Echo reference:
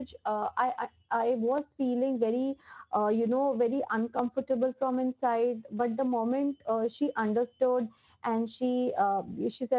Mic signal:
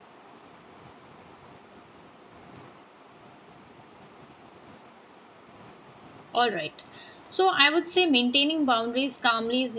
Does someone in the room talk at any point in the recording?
Yes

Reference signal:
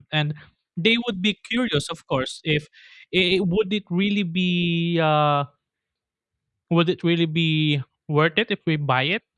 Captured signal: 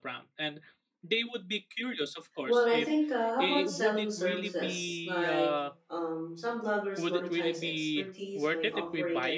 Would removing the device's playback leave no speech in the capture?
No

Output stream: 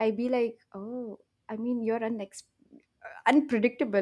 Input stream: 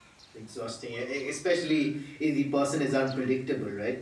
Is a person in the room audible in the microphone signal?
Yes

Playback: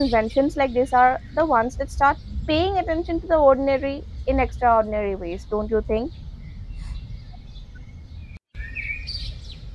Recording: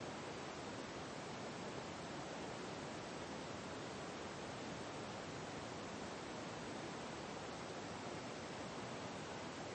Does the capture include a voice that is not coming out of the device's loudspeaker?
No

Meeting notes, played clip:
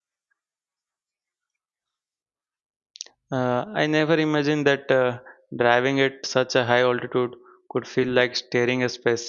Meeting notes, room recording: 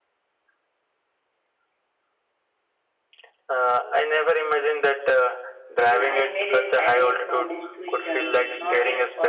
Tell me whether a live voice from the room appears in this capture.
Yes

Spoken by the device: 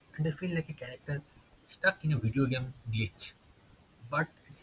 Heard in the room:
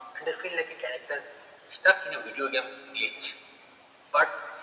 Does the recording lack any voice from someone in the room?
Yes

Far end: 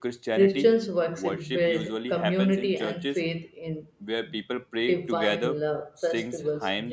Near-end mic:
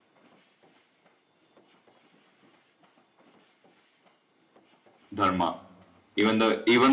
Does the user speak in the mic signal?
Yes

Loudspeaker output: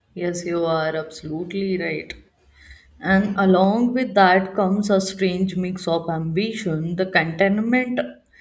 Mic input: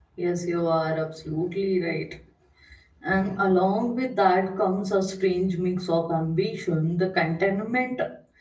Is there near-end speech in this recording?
No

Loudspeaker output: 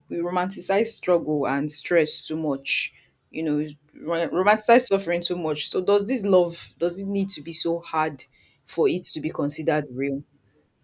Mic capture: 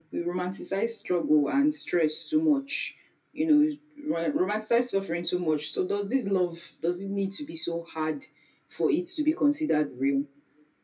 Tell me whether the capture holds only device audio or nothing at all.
Yes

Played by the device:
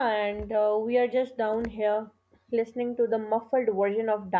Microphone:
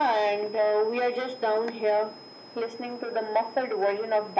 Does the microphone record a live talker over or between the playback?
No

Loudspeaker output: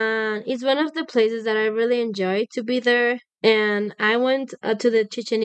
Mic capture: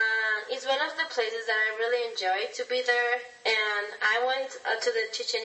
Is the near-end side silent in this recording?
Yes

